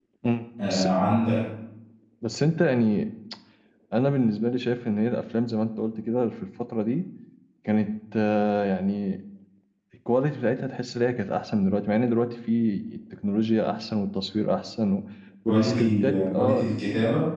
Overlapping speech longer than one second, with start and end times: 15.5-16.7

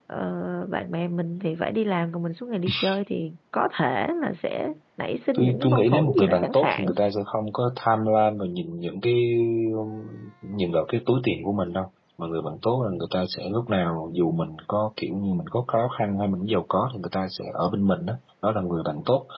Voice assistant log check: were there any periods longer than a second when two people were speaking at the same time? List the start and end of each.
5.3-6.9

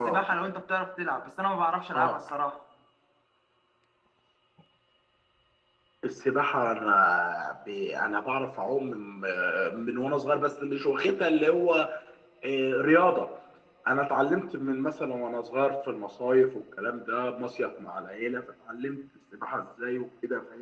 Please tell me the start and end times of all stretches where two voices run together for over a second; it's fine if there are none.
none

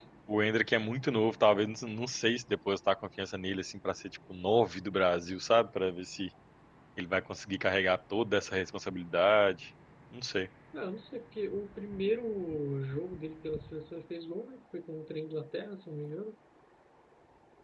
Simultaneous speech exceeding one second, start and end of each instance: none

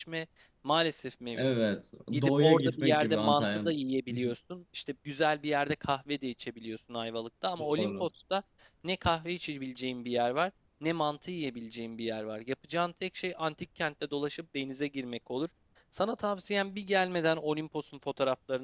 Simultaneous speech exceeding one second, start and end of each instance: 2.1-3.5

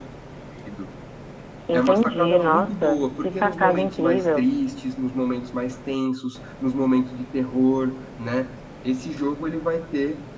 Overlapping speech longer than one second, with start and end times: 1.7-4.5

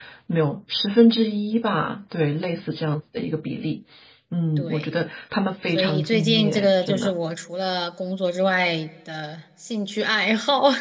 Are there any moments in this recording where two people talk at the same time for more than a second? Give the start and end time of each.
5.7-7.1

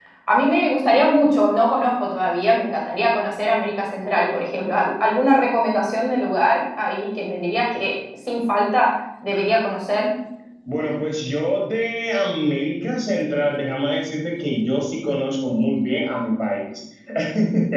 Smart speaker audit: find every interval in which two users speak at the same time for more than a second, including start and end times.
none

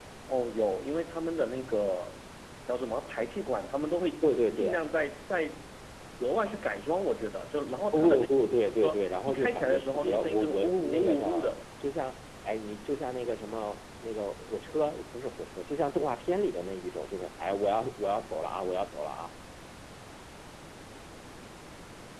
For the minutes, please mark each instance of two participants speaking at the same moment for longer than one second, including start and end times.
8.8-11.5

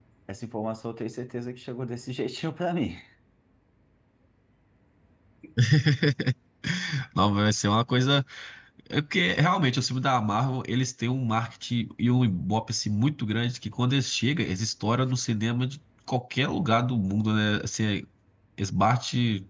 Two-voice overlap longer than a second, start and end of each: none

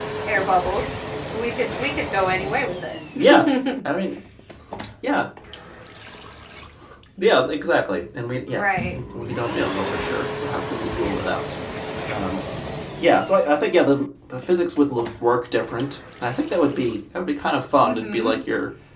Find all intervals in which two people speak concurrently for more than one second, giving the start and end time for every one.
none

